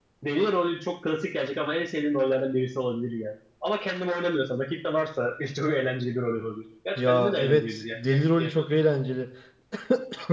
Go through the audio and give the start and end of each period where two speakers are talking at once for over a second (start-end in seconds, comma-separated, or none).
7.0-8.7